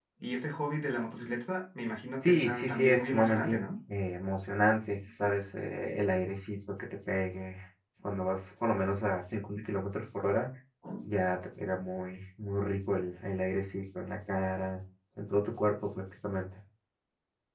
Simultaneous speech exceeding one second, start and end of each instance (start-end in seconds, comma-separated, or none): 2.2-3.6